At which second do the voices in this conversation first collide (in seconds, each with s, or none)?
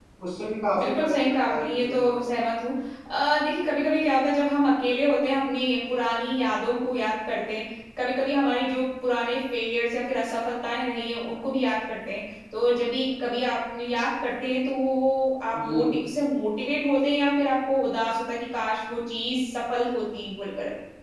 0.8 s